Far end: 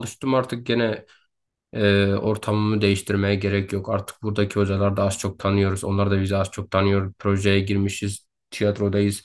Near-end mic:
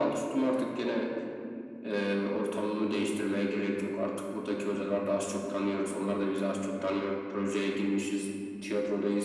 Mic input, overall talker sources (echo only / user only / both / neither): echo only